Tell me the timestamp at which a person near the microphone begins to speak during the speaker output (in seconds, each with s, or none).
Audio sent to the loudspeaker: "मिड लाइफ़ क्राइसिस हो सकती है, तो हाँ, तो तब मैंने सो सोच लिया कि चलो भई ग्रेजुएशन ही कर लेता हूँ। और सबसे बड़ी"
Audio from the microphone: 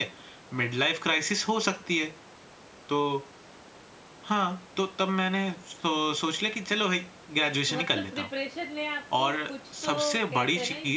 7.7 s